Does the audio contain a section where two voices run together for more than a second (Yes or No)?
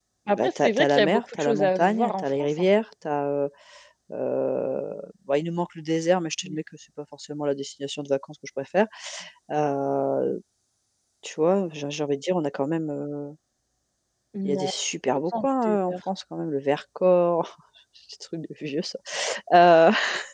Yes